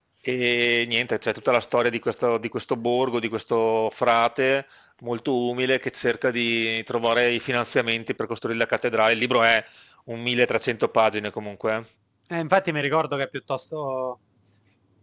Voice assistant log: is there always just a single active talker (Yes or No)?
Yes